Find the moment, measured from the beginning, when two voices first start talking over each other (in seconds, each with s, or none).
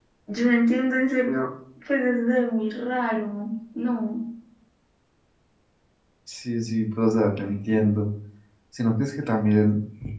none